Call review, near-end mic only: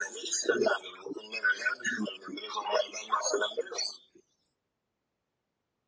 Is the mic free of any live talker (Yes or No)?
Yes